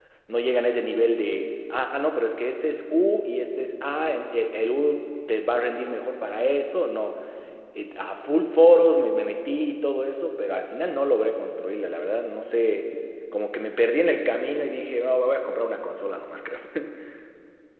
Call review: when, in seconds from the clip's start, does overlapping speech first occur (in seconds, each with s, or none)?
none